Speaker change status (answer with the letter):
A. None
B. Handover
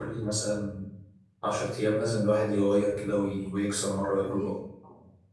B